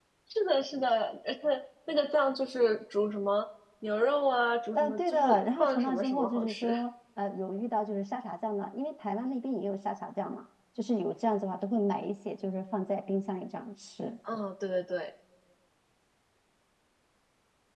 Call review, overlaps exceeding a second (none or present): present